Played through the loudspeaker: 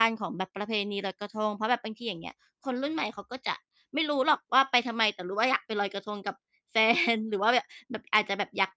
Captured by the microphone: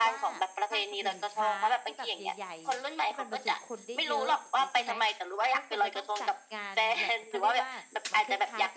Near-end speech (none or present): present